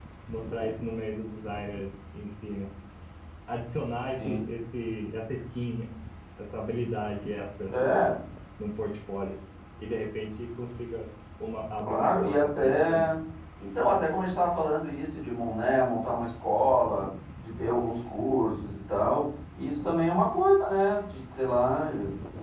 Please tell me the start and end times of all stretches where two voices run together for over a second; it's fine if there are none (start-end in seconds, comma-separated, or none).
11.8-13.1